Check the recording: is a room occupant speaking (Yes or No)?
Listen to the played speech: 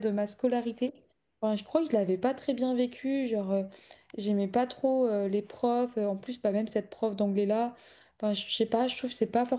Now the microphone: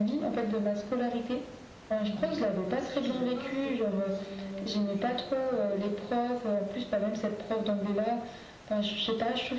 Yes